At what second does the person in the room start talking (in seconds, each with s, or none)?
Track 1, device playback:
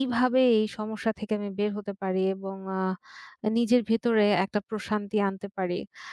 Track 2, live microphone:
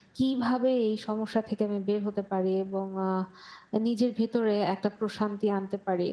none